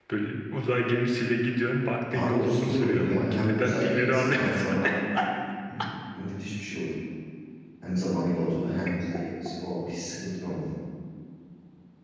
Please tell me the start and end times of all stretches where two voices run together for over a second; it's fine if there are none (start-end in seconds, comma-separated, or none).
2.1-4.7